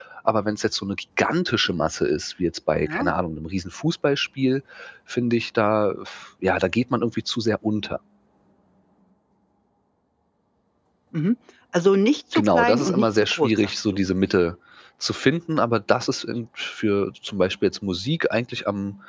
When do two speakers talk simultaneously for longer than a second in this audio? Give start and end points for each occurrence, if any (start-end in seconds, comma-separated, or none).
12.3-13.7